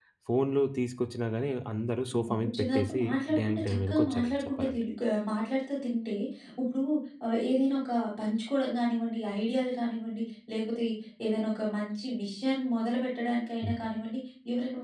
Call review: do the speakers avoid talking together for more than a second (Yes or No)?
No